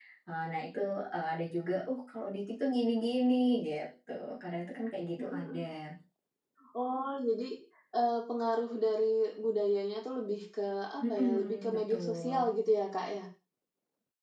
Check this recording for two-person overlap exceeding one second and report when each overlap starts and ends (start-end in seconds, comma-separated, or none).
11.2-12.5